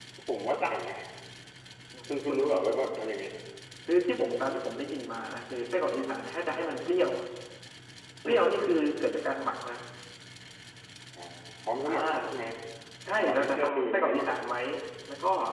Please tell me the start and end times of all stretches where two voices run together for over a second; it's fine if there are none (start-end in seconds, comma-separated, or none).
13.1-14.3